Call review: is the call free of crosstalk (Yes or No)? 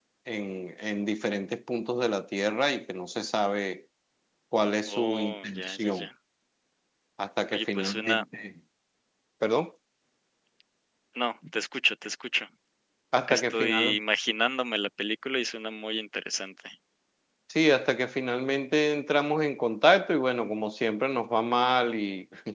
No